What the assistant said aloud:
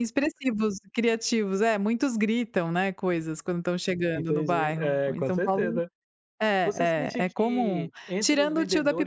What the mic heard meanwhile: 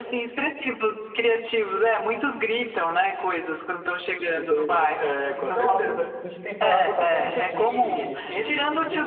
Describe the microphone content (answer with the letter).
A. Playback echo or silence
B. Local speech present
B